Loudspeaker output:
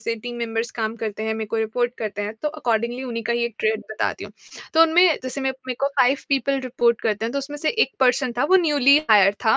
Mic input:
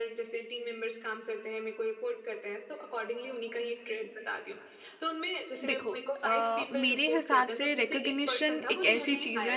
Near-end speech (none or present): present